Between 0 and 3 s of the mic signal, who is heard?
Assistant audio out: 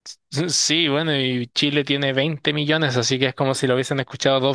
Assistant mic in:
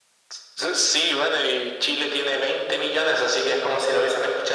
echo only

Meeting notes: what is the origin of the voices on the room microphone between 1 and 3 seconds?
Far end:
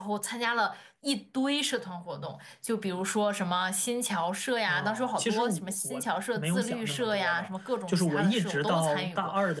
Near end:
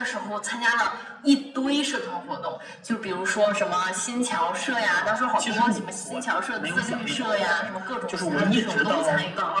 echo only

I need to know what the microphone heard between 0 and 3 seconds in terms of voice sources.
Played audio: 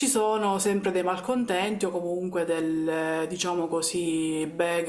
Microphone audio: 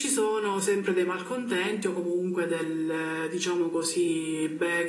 echo only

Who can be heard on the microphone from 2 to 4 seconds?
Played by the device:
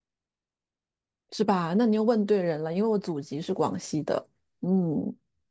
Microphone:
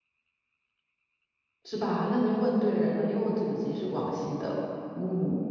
echo only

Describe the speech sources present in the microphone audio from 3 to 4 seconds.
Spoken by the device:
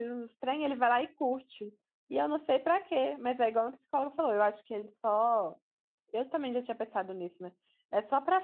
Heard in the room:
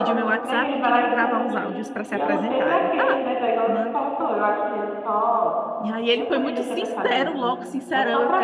both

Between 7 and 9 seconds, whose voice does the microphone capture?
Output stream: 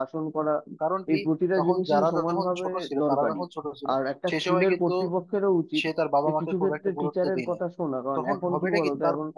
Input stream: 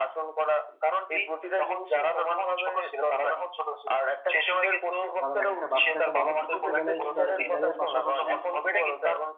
both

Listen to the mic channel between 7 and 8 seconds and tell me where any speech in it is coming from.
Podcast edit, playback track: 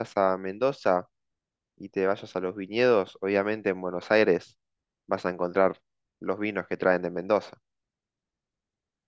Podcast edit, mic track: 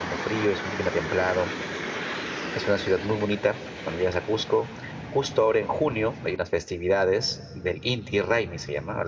user only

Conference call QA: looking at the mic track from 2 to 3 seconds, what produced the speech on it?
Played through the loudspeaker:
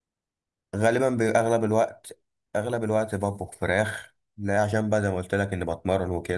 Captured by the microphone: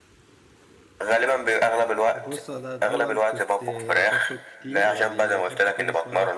both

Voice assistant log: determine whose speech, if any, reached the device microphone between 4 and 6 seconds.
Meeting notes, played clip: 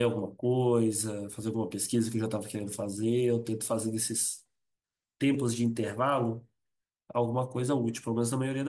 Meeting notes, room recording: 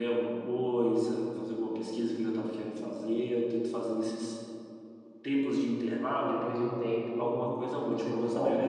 echo only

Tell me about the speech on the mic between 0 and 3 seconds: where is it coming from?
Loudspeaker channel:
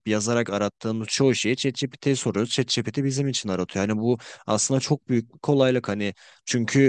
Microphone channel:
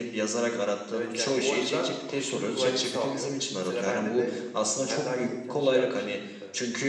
both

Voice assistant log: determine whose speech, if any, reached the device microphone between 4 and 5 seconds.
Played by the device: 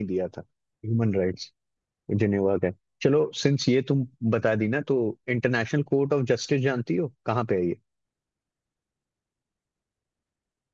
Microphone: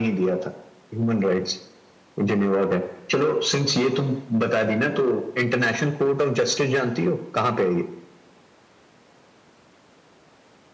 echo only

